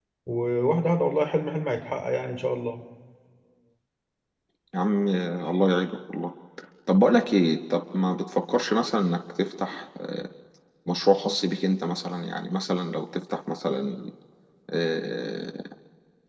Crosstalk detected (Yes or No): No